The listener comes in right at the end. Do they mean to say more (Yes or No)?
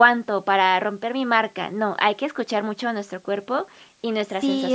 Yes